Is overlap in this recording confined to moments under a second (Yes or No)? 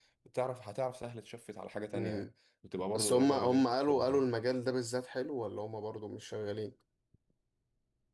No